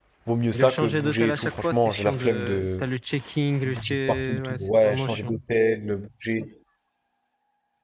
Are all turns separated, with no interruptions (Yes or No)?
No